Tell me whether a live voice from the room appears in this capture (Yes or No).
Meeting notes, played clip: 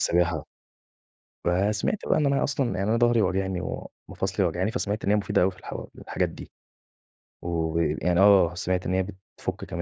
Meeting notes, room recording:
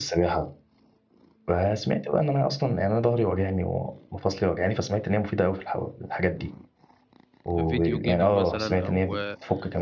Yes